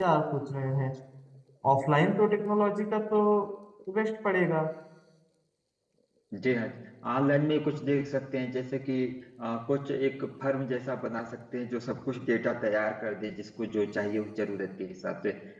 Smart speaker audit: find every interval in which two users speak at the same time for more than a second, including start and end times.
none

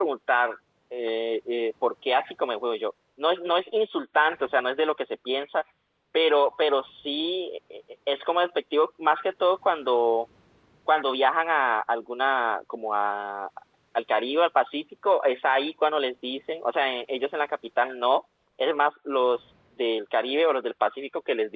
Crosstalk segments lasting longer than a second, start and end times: none

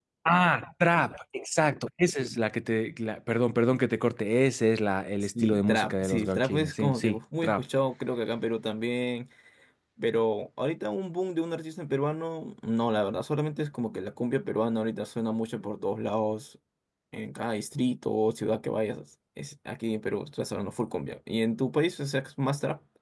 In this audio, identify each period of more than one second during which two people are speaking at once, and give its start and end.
5.2-7.6

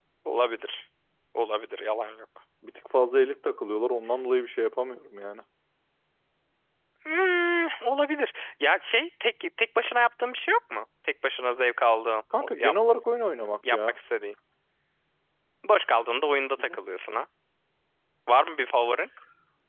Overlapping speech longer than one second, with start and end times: none

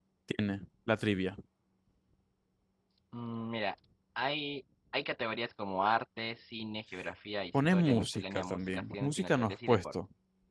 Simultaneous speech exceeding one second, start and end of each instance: 7.7-9.9

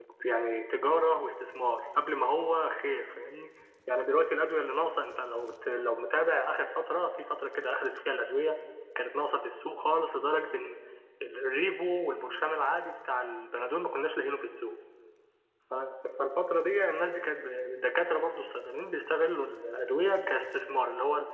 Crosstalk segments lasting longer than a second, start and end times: none

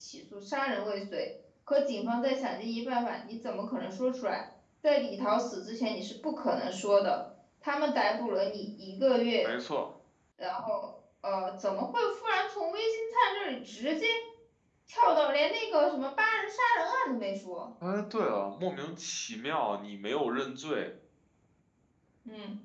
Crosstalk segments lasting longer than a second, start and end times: none

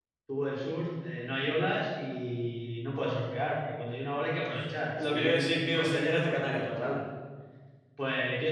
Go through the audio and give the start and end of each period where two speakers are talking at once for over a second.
5.0-7.0

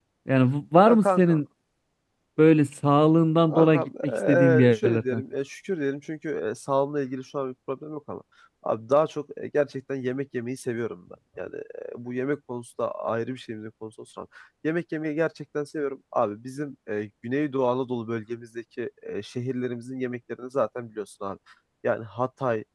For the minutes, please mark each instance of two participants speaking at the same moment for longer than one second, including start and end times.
3.5-5.2

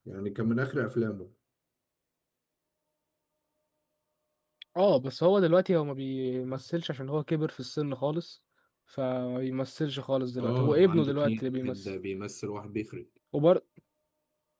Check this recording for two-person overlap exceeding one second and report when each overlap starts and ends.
10.4-11.8

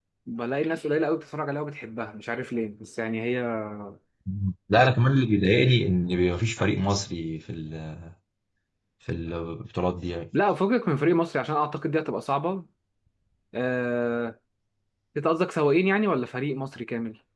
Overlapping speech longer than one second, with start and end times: none

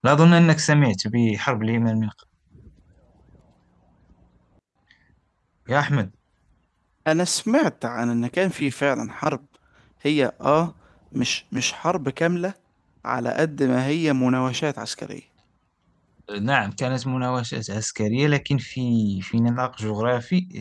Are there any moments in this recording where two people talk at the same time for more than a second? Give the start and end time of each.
none

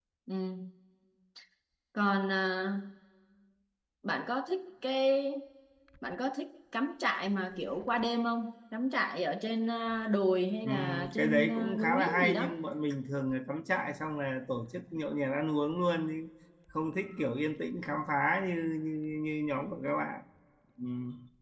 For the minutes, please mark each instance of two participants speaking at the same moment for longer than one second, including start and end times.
10.6-12.5

